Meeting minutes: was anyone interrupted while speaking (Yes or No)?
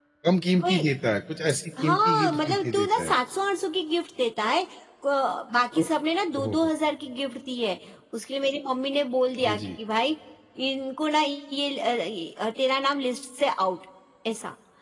Yes